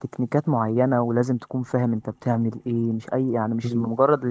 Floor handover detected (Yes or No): No